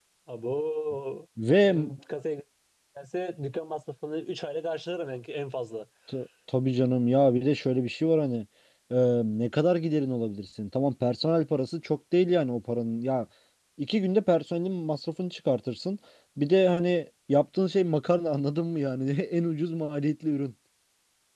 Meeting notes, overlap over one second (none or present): none